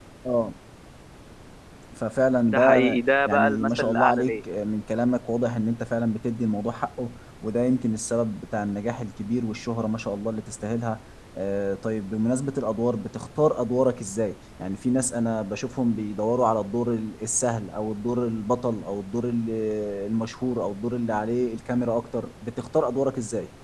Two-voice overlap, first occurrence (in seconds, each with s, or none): 2.5 s